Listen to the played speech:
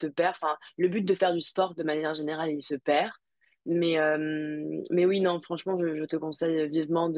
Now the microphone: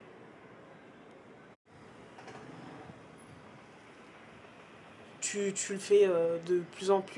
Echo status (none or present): none